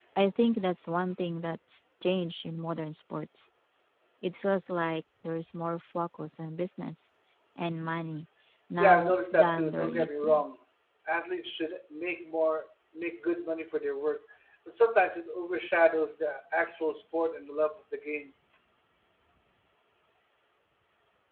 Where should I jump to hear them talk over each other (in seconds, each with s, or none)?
8.8 s